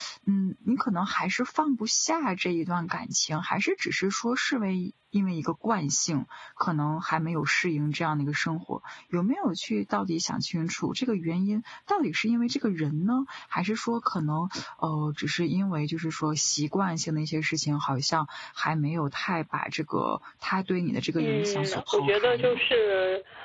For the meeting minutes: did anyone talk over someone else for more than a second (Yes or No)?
Yes